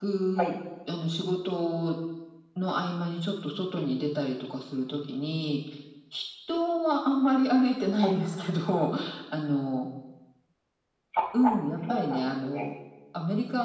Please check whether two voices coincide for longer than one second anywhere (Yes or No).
Yes